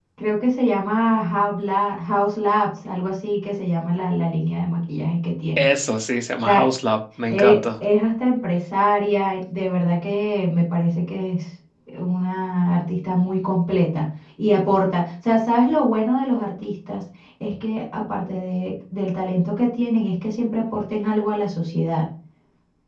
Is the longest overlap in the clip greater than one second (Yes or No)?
No